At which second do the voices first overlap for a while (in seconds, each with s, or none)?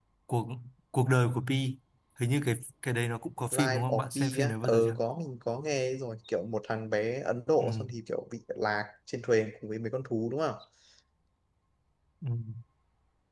3.6 s